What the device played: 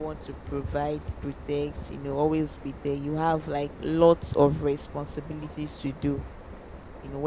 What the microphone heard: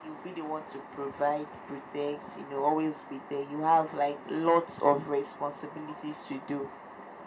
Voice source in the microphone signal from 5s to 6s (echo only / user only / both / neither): echo only